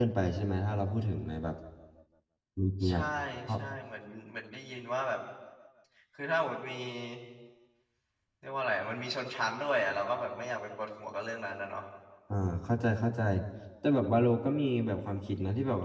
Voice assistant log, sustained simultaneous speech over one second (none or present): none